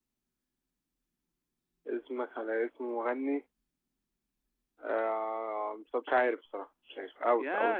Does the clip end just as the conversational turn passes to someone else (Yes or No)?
Yes